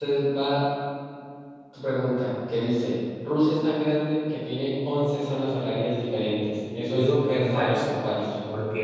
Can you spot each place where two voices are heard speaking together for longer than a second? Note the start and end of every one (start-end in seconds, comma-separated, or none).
6.8-8.1